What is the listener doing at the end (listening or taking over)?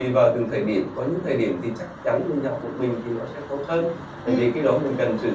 listening